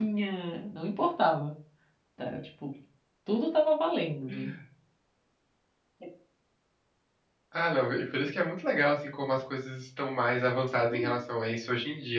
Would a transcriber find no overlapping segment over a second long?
Yes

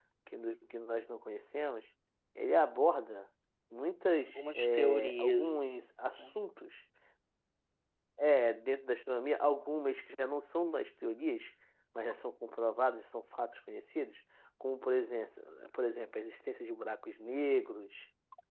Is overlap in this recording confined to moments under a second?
No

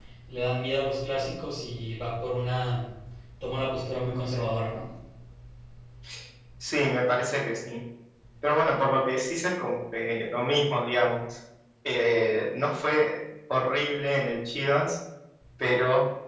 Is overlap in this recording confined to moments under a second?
Yes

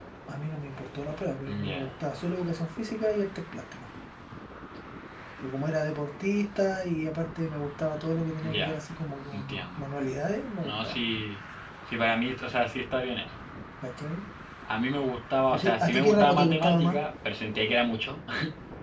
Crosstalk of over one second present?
Yes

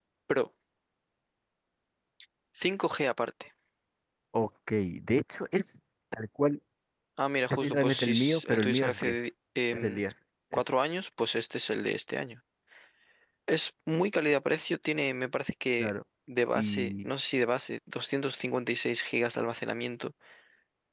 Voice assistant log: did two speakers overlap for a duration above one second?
Yes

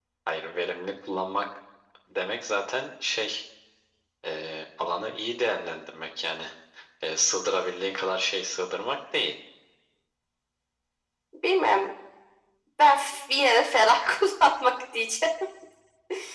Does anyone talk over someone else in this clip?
No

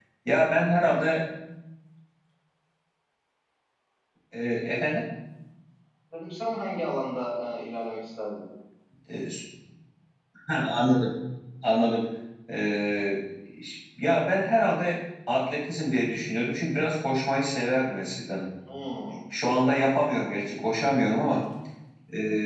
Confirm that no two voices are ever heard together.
Yes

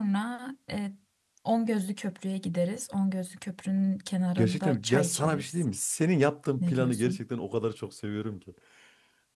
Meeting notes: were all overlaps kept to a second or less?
No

